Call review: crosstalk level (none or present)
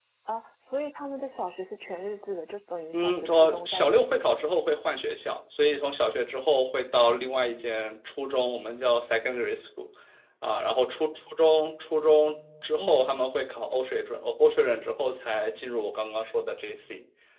present